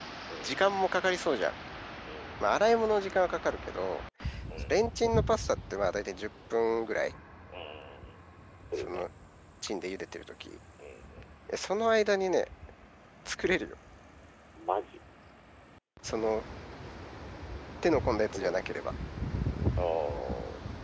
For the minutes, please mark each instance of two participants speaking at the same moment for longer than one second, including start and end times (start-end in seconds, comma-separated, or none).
none